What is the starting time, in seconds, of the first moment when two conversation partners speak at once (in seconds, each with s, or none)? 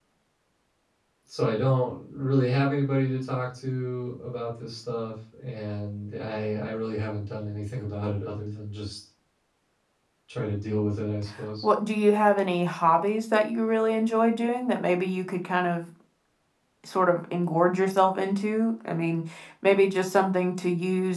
none